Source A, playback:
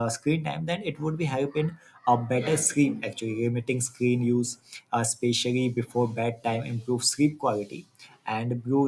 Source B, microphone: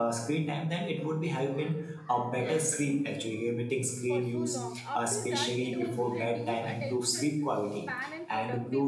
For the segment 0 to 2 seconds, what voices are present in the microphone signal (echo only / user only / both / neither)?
echo only